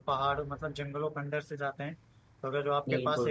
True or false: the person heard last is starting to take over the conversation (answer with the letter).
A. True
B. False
B